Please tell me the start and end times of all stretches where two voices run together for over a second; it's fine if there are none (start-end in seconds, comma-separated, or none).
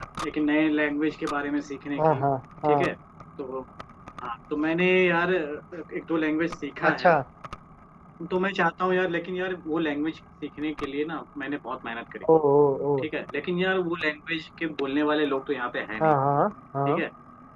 none